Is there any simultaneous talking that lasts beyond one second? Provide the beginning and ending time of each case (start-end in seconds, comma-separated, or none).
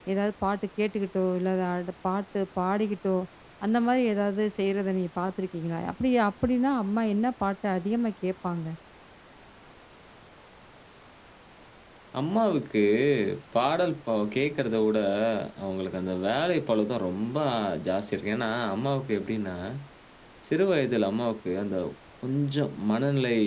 none